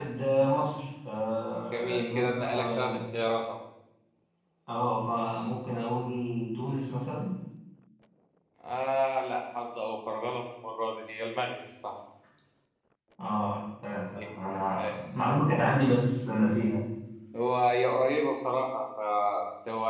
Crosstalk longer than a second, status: present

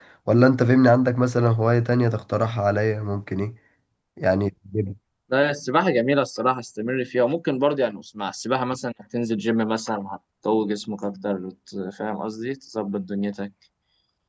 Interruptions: none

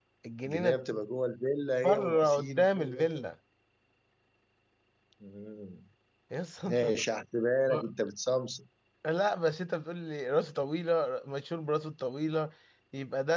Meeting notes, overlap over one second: present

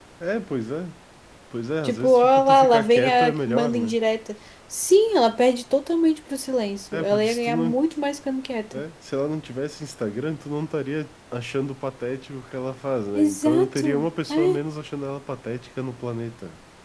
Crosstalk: present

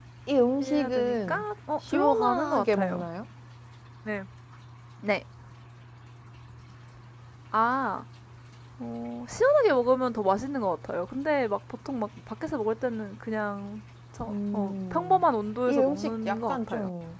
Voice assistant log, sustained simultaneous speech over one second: present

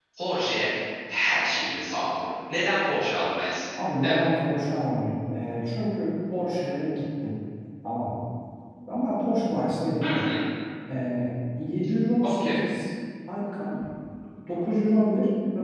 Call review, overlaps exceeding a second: none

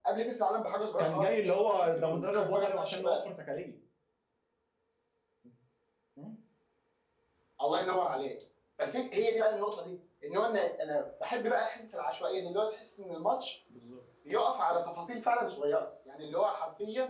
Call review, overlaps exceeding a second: present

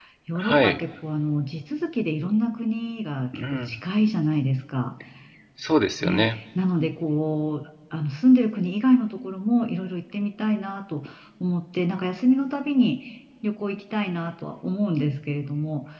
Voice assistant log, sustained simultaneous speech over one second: none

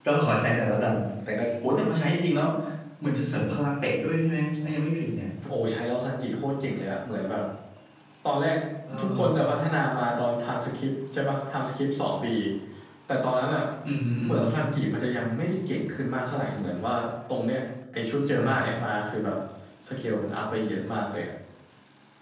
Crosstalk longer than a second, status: none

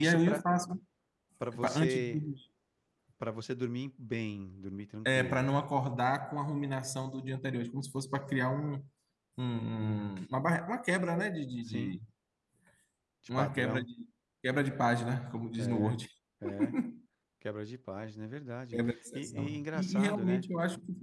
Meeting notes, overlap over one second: present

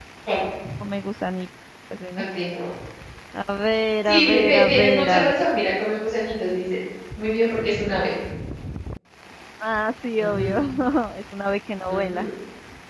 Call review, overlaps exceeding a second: present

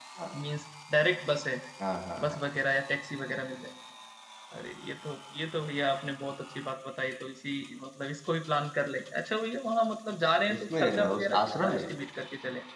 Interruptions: present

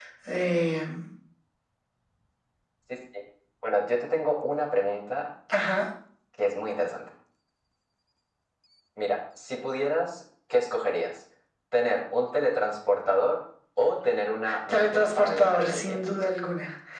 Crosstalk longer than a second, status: present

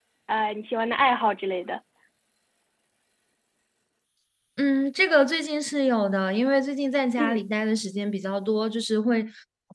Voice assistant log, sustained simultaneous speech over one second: none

